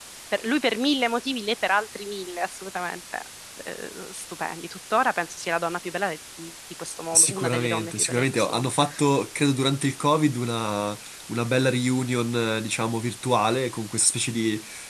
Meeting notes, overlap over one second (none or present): present